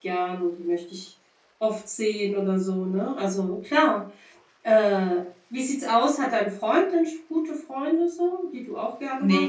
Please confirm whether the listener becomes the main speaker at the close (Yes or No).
Yes